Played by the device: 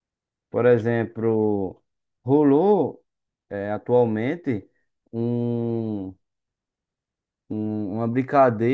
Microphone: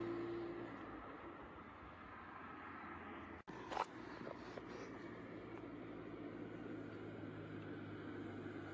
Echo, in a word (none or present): none